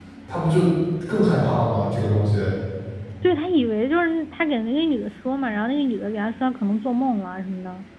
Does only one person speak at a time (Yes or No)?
Yes